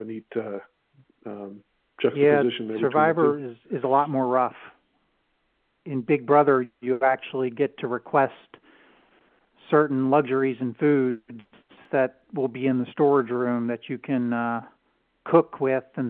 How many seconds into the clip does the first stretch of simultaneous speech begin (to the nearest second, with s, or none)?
2 s